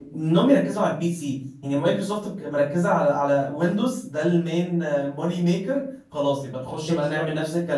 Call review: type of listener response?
listening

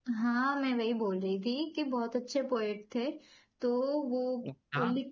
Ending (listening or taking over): listening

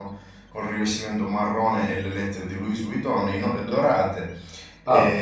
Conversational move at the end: listening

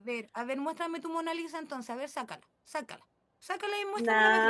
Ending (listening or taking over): taking over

